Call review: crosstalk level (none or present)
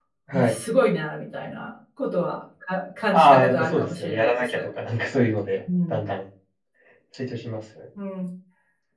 present